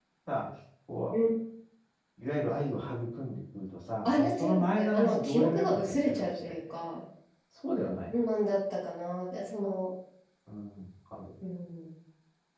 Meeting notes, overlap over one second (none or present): present